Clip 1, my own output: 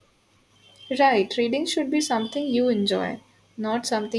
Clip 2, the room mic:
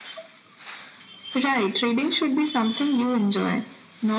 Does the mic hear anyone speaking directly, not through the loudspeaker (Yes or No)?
No